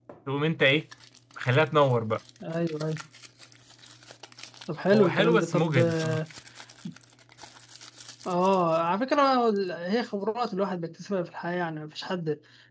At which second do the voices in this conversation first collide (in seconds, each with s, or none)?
4.9 s